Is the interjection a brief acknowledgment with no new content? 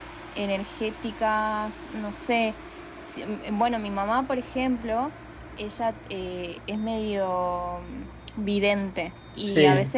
Yes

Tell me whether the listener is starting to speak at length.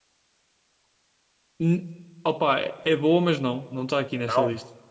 No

